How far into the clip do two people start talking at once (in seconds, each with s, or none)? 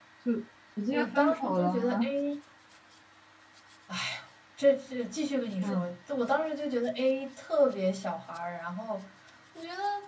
0.9 s